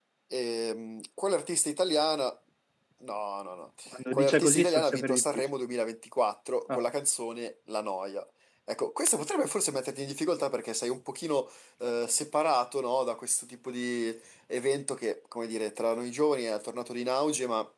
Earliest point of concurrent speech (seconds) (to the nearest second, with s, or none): 4 s